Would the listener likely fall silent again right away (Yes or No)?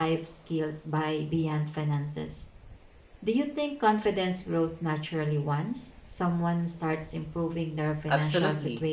No